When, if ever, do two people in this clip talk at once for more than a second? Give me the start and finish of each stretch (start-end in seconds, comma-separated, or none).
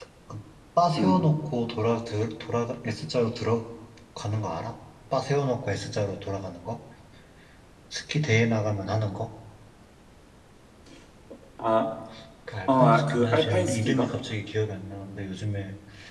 12.7-14.1